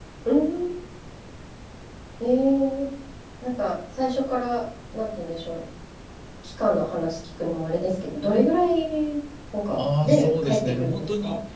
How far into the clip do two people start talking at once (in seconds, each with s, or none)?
9.8 s